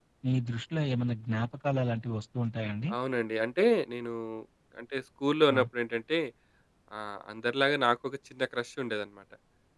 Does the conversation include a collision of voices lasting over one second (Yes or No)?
No